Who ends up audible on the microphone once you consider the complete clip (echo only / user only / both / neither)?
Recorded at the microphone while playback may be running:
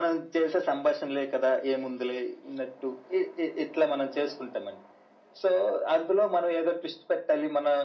echo only